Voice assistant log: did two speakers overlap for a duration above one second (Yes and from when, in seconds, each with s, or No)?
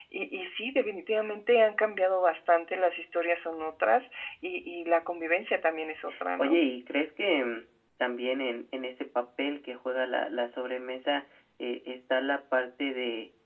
No